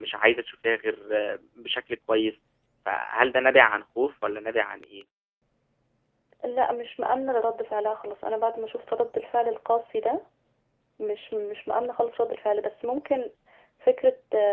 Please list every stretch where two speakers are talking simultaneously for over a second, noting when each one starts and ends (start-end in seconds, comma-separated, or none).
none